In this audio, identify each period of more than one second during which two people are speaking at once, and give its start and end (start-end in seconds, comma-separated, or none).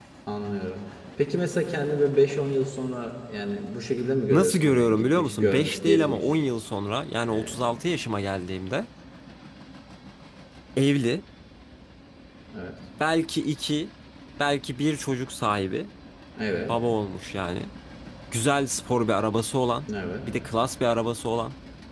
4.3-6.3